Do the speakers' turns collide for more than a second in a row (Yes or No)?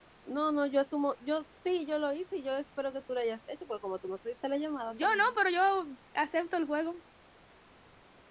No